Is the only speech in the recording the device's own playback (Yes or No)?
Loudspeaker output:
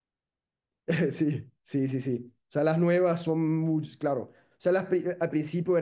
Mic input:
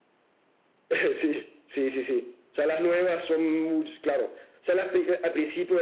Yes